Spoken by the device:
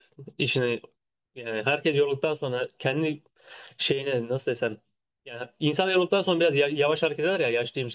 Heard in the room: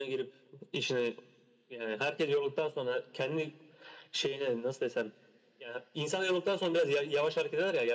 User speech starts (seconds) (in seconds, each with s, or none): none